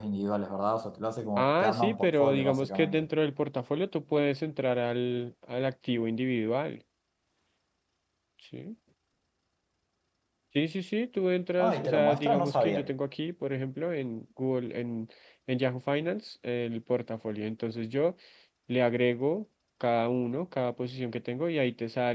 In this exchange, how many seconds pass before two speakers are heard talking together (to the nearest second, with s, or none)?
1 s